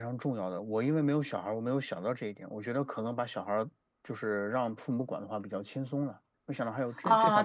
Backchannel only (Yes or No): No